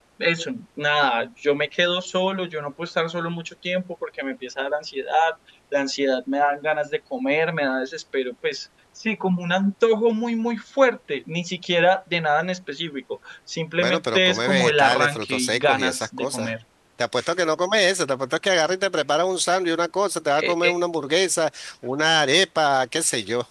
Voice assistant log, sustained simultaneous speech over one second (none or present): present